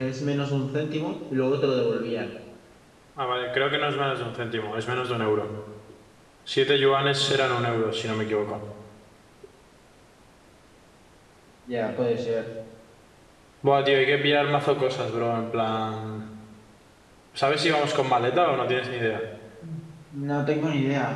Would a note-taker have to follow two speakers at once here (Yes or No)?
No